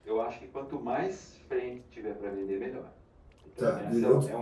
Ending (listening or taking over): taking over